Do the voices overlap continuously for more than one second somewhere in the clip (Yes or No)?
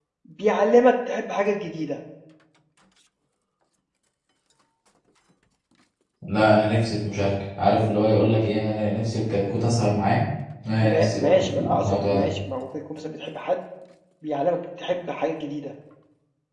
Yes